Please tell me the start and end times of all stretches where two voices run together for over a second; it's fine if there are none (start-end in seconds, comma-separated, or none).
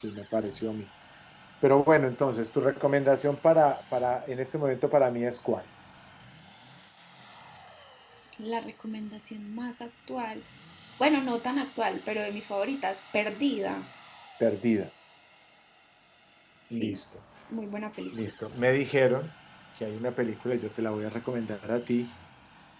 none